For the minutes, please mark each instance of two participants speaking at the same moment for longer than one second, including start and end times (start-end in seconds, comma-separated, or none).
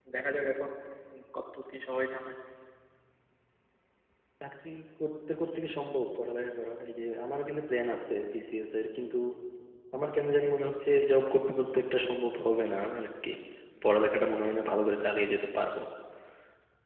none